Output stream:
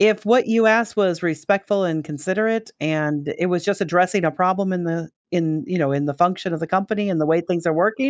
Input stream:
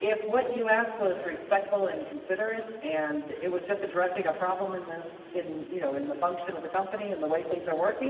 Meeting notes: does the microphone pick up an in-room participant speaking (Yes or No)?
No